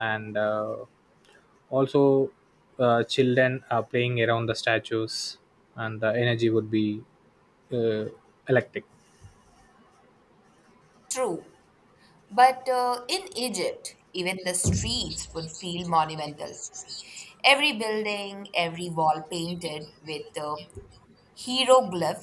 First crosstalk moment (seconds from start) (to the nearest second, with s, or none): none